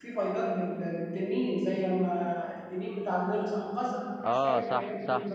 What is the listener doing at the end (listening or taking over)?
taking over